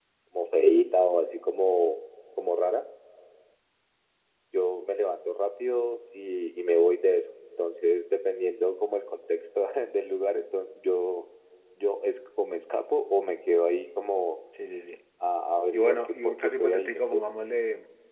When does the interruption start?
15.7 s

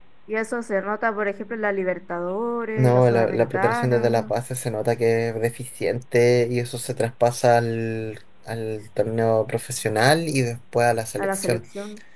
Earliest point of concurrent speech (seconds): 2.8 s

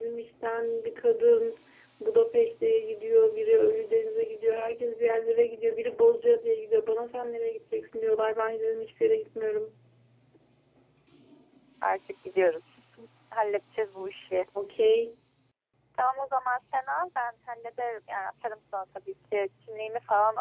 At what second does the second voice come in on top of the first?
none

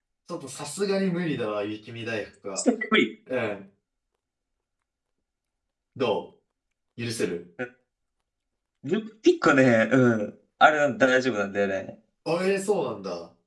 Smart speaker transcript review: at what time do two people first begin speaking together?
none

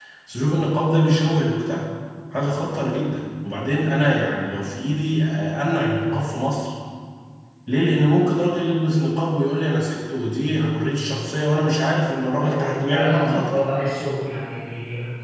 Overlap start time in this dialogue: 12.4 s

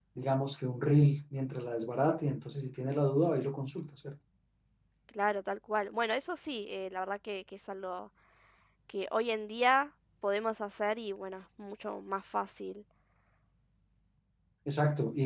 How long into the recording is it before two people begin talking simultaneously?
none

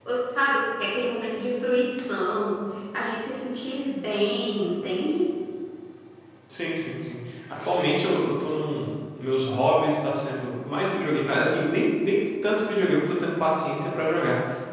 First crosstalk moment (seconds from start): none

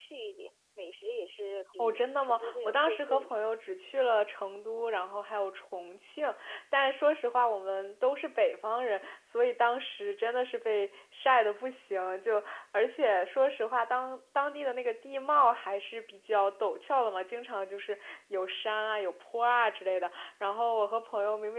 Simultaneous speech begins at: 1.8 s

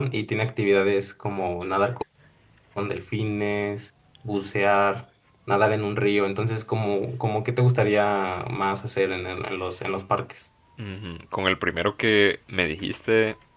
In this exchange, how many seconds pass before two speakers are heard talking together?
none

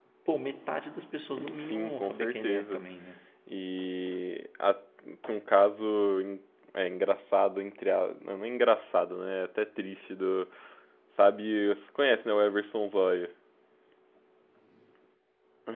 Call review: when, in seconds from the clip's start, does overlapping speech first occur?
1.3 s

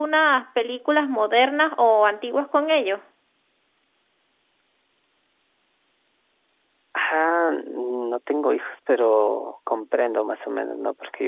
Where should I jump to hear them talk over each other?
none

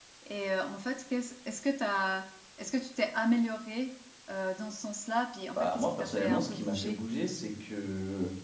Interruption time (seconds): 5.5 s

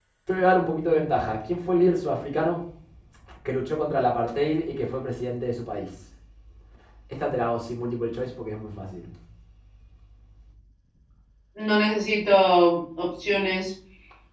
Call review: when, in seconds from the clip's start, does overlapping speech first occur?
none

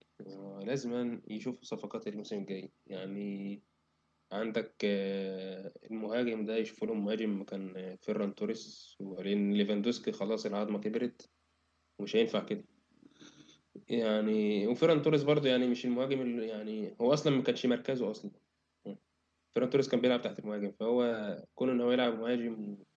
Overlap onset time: none

